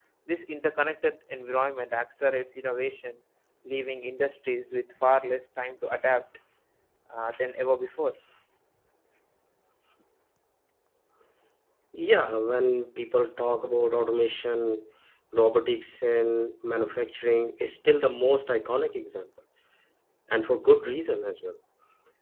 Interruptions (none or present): none